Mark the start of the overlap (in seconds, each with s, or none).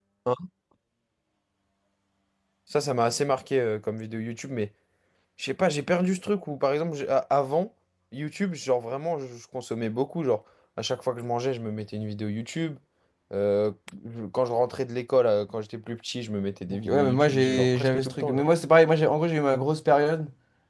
16.7 s